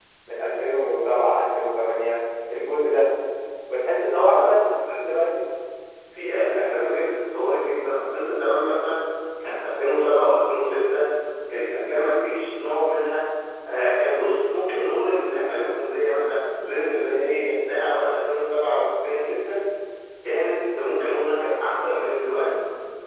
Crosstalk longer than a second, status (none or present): none